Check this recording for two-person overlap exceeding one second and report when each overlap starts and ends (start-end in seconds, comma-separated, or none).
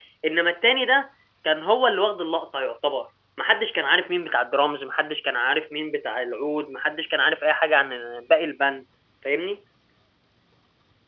none